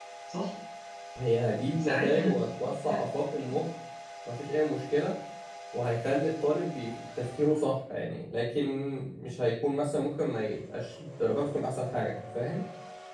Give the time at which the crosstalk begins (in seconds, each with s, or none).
1.8 s